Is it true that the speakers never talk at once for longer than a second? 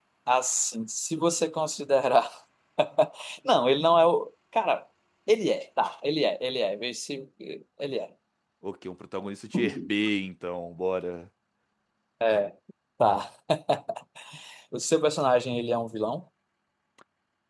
Yes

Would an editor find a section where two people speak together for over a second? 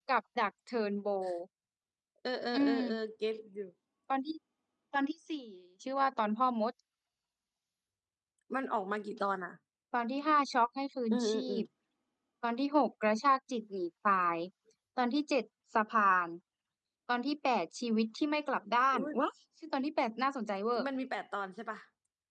No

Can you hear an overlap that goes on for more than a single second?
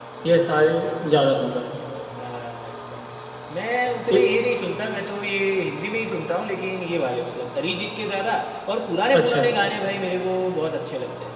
No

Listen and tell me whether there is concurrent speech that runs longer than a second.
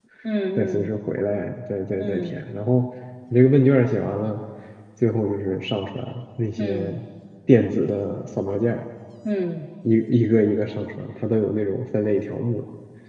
No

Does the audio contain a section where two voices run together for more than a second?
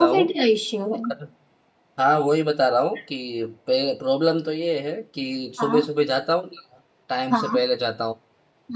No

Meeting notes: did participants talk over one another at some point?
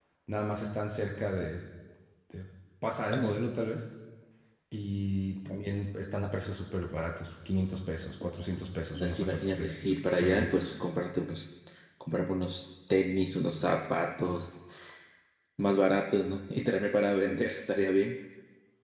Yes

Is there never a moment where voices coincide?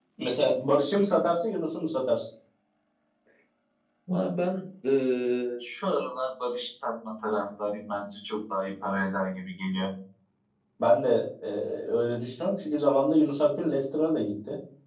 Yes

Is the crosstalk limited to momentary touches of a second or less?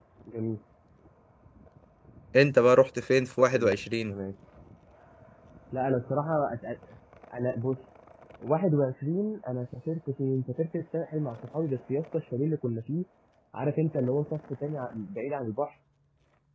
Yes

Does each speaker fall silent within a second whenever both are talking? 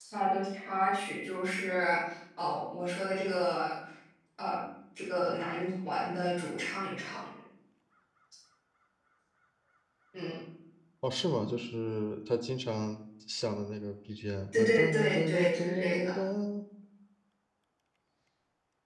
No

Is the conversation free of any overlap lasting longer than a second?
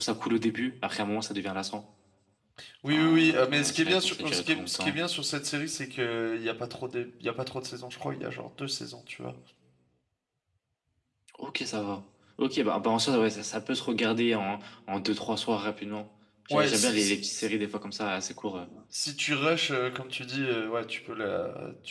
No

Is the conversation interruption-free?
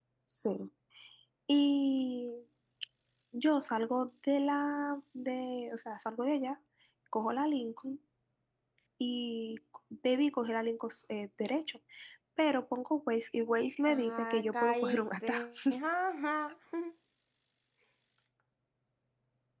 No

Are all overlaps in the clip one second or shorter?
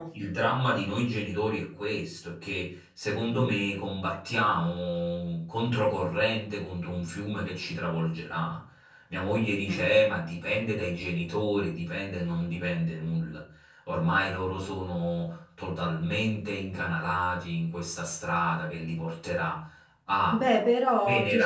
Yes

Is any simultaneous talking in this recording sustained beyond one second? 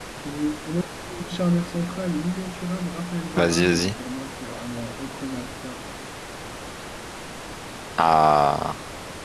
No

